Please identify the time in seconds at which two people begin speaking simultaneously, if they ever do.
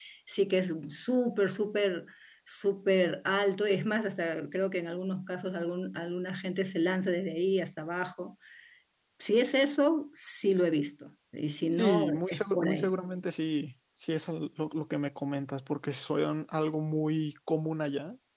11.7 s

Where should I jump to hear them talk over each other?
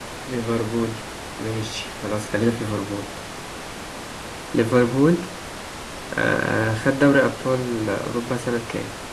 none

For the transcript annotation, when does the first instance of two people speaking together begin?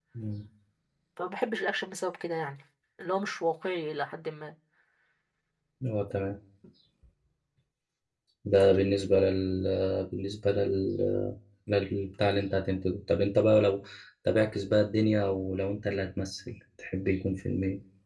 none

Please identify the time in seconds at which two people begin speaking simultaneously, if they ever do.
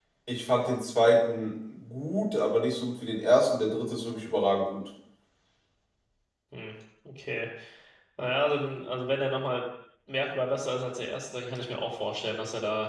none

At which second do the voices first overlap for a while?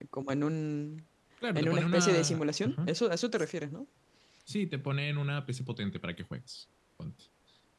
1.6 s

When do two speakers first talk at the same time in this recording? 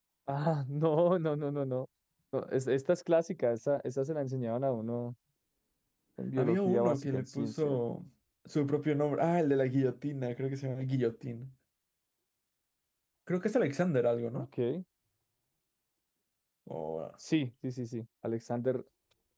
6.4 s

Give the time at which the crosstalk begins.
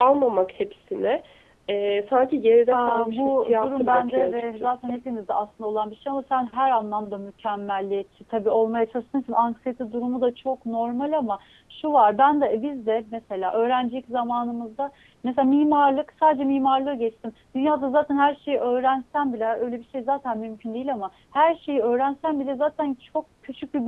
2.7 s

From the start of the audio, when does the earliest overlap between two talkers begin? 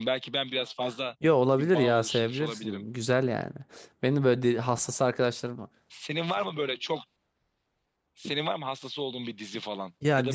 1.6 s

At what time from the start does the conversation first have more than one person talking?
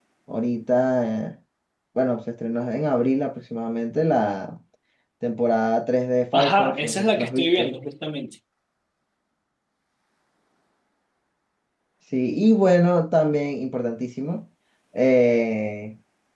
6.3 s

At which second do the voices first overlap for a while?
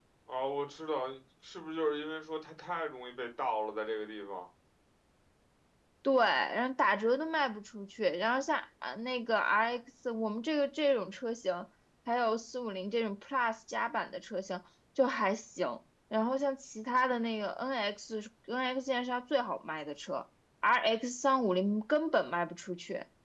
none

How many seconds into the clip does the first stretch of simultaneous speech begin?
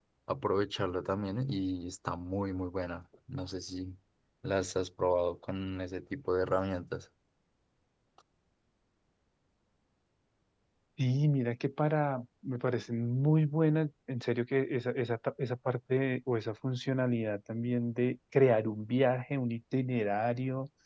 none

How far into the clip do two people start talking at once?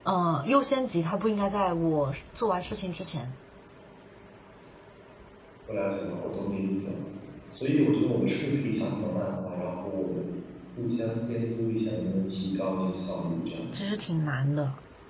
none

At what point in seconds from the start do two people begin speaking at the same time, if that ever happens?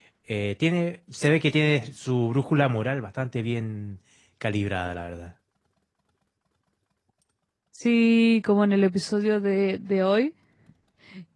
none

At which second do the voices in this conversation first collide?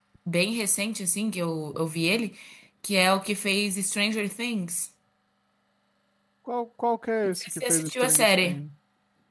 7.2 s

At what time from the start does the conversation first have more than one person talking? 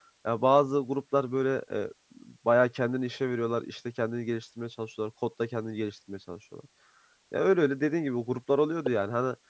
none

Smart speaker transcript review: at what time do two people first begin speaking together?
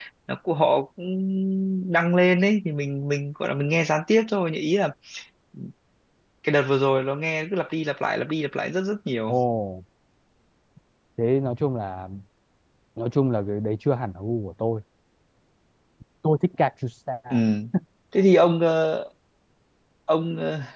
none

